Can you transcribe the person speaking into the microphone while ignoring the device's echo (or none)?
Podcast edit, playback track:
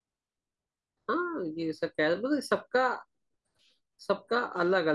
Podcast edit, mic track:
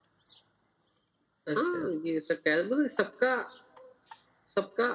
अच्छा